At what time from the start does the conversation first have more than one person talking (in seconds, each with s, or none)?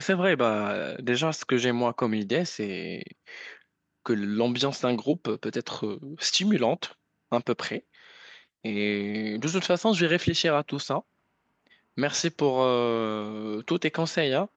none